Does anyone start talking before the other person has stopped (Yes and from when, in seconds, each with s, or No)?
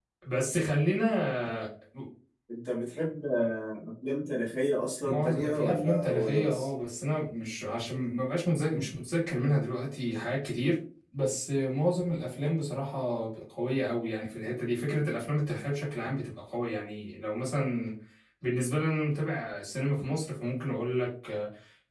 Yes, from 5.0 s